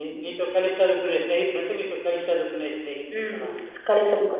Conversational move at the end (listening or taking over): taking over